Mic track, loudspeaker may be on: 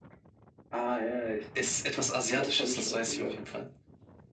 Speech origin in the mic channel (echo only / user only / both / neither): echo only